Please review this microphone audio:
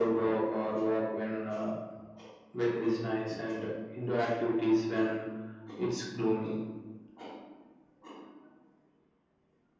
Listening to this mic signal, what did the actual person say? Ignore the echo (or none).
none